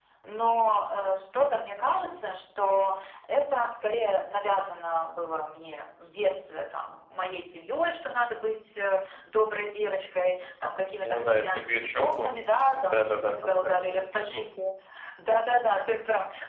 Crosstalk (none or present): present